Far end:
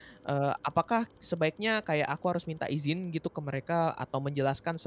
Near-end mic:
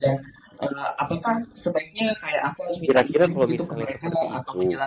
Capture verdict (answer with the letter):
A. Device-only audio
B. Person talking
B